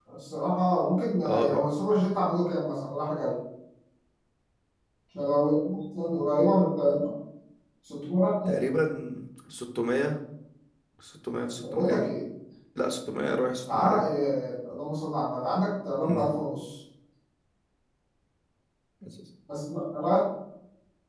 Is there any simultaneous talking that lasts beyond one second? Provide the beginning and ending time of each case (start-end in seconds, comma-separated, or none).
none